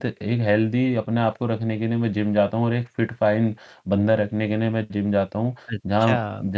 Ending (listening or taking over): taking over